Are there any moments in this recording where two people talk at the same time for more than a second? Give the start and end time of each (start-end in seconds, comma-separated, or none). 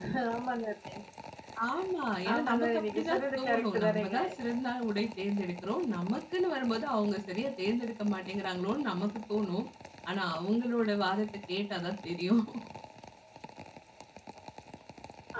2.3-4.2